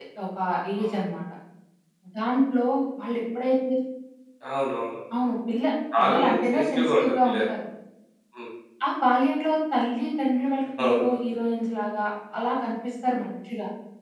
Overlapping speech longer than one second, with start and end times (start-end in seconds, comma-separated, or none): 6.0-7.4